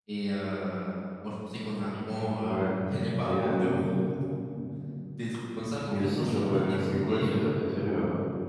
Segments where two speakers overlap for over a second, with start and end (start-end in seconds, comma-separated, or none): 5.9-7.5